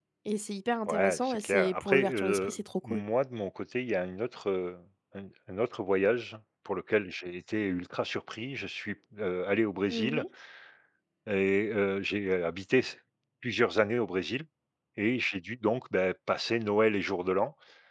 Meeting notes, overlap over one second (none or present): present